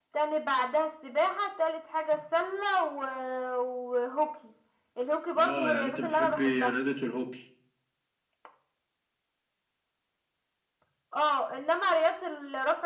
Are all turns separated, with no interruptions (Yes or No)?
No